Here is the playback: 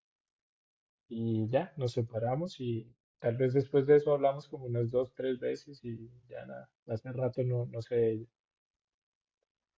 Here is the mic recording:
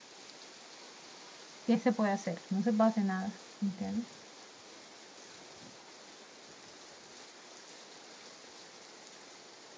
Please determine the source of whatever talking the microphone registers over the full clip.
user only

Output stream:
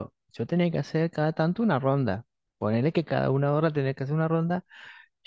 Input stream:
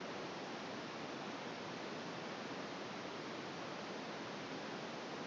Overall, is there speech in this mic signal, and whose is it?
neither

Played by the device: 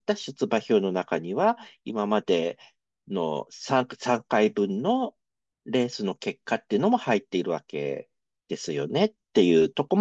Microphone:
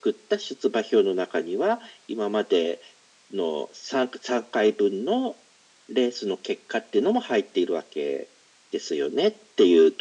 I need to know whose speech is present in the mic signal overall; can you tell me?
echo only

